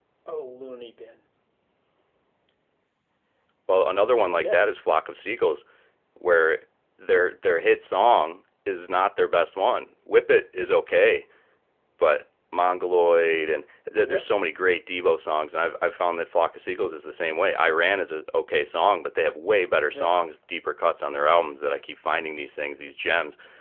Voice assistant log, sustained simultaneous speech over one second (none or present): none